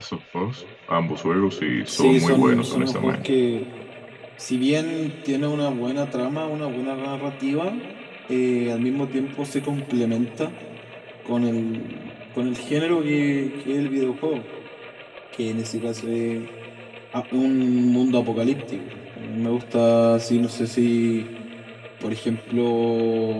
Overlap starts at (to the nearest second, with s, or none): 2 s